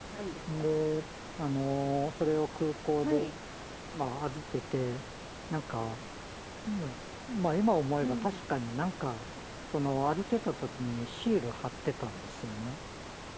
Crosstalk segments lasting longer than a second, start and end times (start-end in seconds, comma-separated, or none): none